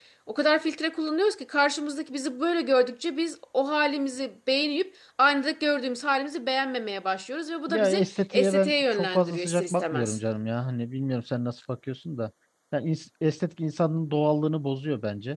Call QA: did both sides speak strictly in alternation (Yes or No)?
No